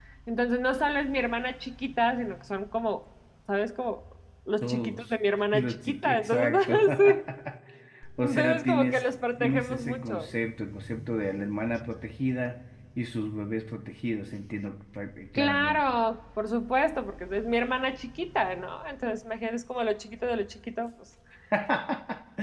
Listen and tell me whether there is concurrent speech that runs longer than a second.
Yes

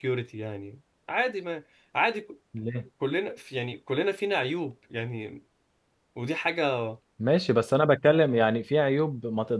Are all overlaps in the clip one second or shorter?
Yes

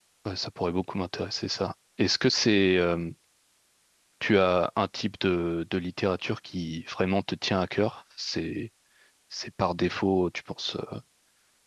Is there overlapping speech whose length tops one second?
No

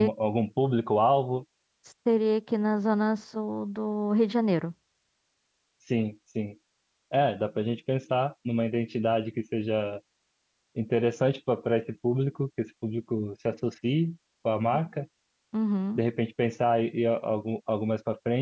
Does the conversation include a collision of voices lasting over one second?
No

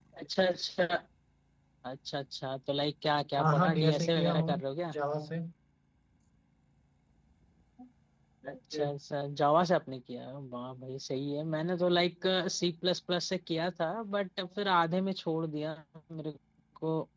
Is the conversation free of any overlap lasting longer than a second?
No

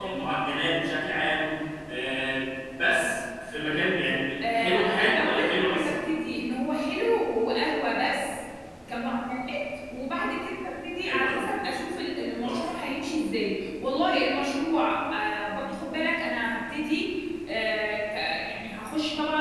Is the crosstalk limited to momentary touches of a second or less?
No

